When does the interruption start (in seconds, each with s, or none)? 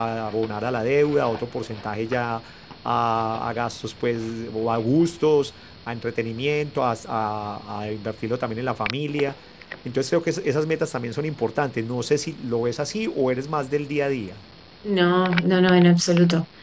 none